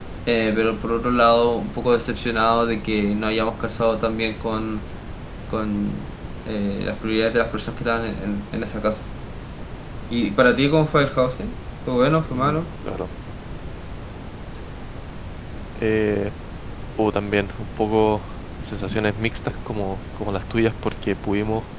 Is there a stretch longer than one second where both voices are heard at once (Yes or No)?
No